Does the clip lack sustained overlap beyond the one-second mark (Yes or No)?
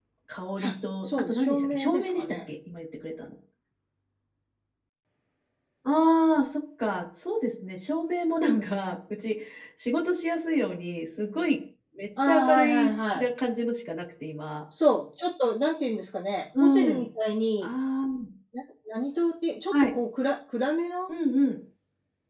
No